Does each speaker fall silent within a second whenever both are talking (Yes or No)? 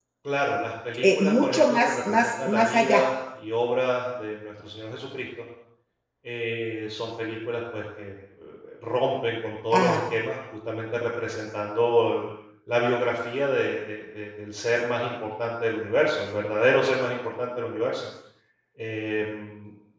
No